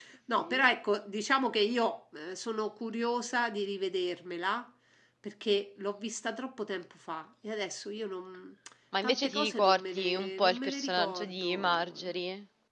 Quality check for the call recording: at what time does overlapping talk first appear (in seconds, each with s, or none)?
9.0 s